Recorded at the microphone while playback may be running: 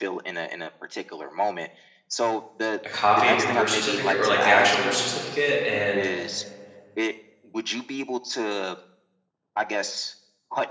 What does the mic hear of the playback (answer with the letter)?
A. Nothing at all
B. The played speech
B